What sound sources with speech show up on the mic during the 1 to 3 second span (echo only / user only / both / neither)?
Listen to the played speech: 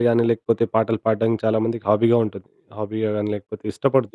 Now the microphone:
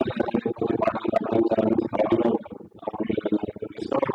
echo only